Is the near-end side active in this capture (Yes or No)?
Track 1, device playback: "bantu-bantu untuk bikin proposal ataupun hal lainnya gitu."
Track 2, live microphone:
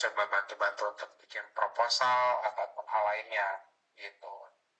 No